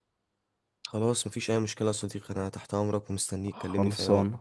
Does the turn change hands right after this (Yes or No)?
Yes